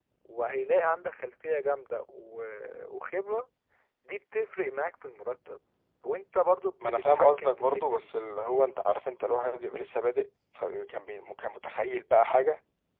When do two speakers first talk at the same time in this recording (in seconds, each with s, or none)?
6.8 s